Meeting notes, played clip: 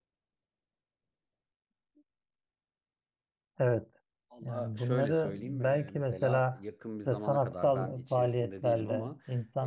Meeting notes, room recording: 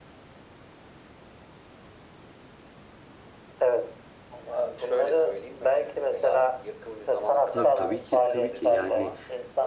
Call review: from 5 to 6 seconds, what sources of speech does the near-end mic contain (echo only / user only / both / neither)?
echo only